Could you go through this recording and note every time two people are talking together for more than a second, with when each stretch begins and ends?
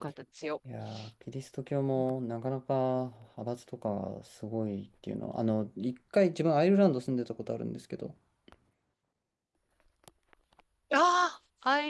none

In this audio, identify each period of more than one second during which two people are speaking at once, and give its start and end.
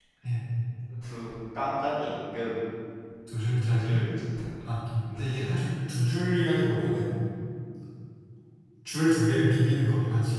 none

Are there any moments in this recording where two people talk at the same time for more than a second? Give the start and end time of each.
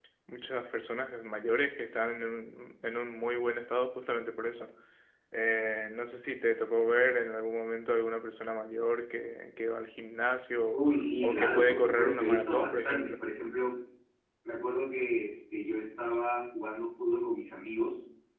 11.2-13.1

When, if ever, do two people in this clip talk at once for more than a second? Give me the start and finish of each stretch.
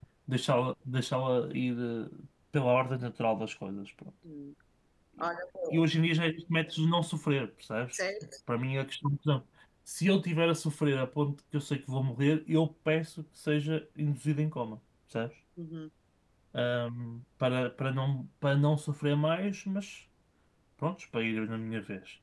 none

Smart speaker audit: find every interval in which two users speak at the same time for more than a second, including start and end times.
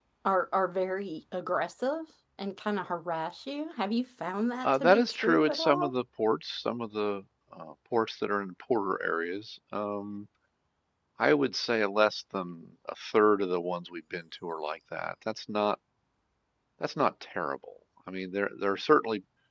4.6-5.9

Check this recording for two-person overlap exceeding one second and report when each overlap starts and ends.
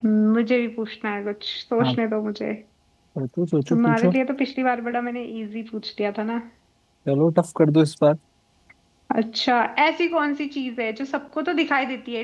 none

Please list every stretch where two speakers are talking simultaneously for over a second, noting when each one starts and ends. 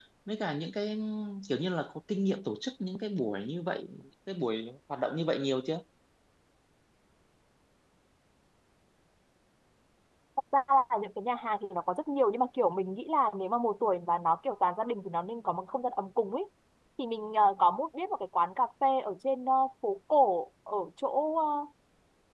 none

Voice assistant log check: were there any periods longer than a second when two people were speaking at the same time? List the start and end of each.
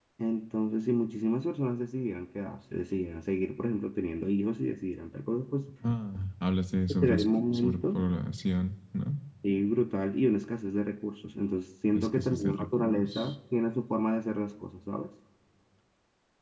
12.0-13.3

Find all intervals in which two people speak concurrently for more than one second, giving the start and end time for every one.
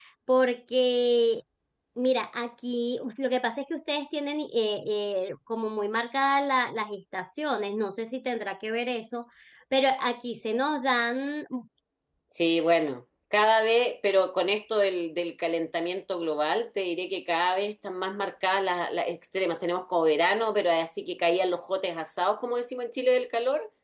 none

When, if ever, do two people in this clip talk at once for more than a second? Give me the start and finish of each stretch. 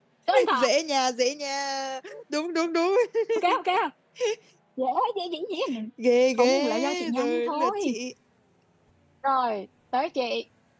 6.4-8.0

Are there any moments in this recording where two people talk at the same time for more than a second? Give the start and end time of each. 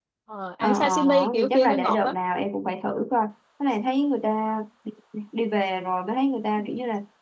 0.6-2.1

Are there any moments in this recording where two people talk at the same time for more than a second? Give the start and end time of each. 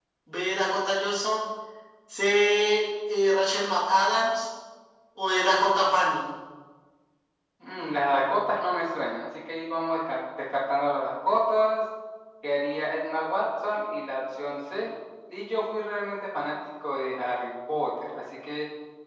none

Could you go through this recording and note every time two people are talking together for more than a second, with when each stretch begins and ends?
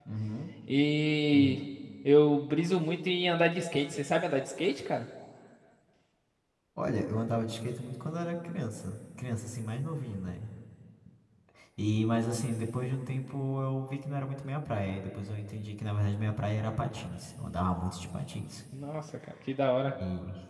none

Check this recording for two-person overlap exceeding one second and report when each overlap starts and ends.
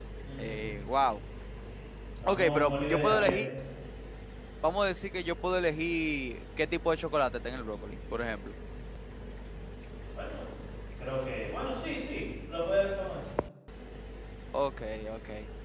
2.2-3.5

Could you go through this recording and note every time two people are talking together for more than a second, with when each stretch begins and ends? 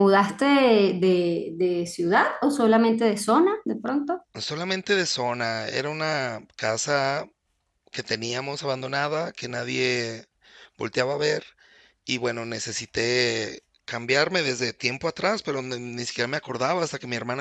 none

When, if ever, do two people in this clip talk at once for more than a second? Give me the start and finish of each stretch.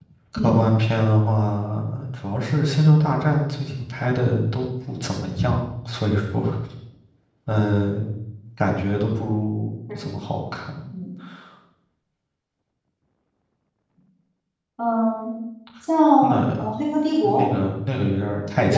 none

